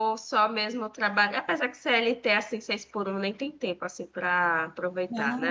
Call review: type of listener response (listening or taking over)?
taking over